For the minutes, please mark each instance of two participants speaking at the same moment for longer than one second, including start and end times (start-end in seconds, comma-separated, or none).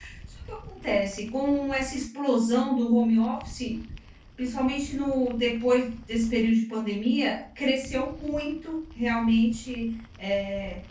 none